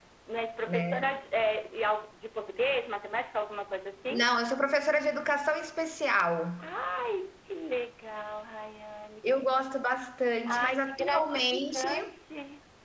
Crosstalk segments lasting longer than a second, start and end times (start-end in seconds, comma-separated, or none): 10.5-11.9